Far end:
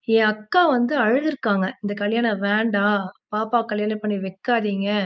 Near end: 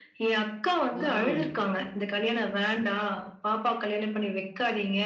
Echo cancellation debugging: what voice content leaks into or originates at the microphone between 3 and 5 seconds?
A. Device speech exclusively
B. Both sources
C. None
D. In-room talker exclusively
A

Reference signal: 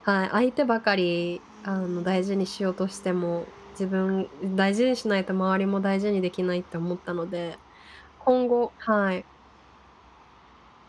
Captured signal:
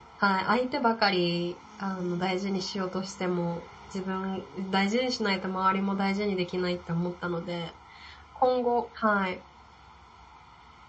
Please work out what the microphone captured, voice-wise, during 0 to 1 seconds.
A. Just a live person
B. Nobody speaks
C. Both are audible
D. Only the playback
D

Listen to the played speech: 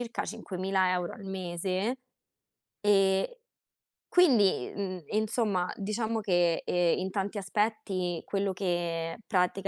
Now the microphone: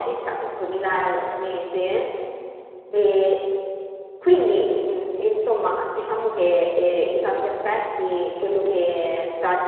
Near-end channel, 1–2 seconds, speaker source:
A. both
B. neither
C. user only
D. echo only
D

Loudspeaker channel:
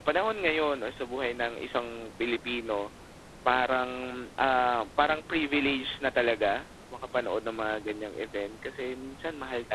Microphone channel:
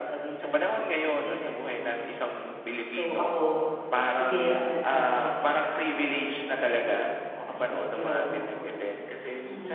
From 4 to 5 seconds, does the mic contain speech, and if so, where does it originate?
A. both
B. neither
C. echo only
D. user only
A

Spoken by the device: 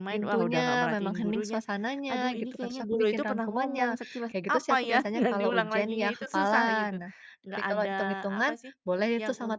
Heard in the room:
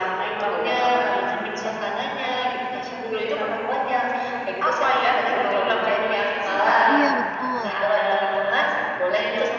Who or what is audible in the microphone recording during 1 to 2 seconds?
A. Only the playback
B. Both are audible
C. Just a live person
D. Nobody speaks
A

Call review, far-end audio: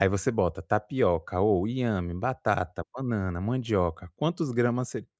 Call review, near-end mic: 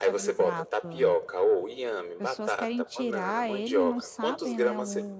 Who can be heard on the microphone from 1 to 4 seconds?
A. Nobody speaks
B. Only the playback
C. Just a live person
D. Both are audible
D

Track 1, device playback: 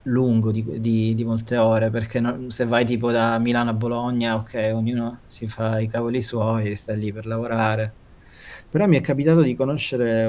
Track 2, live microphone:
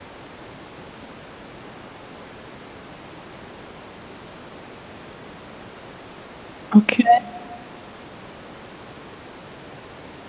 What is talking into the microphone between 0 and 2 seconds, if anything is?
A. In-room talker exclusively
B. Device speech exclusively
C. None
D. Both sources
C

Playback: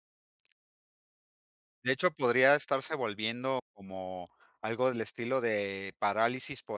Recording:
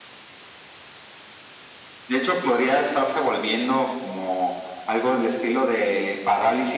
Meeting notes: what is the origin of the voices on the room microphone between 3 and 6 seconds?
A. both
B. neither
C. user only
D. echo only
D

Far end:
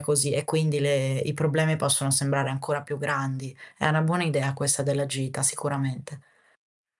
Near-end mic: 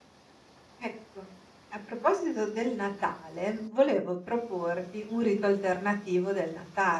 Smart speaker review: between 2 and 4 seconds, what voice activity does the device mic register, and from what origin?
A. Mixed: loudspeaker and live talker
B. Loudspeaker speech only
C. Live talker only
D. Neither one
C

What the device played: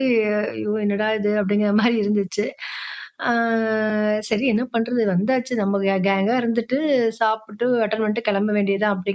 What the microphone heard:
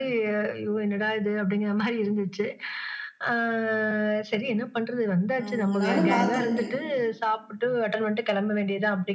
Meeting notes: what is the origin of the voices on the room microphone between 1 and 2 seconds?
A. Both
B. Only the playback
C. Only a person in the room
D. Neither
B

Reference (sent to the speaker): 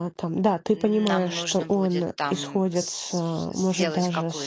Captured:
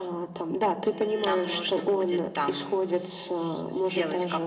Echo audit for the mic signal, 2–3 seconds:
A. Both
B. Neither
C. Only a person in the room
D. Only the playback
D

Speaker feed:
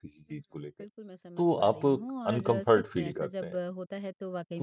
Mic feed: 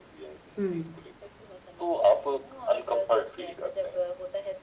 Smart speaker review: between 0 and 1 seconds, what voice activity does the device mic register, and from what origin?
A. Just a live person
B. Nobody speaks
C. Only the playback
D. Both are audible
D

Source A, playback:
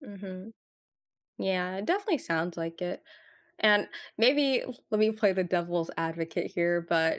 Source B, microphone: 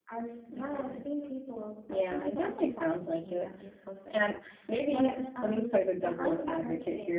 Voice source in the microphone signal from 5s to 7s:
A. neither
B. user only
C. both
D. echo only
C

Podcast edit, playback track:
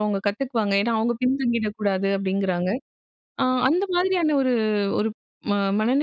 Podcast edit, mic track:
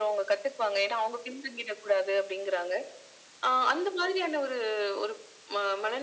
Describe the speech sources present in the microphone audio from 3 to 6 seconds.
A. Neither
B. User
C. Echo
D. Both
C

